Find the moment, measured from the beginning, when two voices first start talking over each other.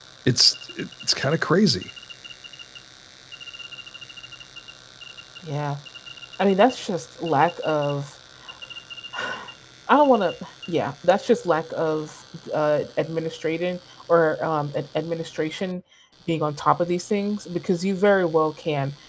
none

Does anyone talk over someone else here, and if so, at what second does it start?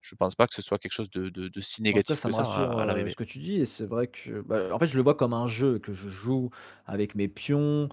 1.9 s

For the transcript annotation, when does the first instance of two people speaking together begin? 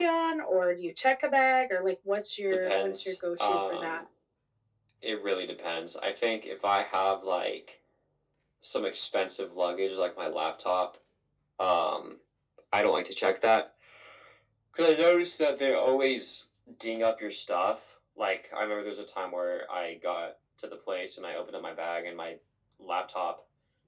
2.5 s

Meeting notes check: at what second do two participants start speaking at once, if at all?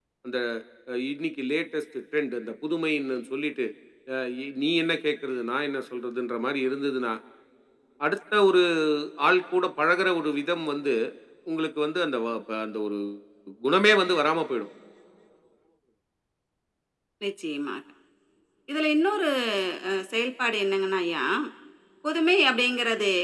none

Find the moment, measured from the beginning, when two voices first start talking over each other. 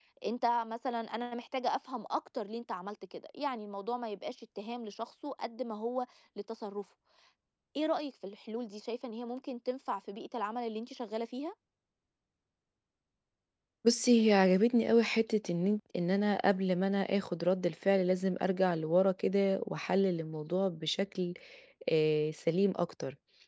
none

